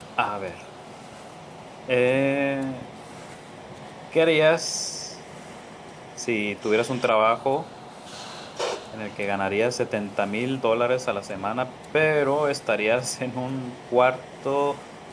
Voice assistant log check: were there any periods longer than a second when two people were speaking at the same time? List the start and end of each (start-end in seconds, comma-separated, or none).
none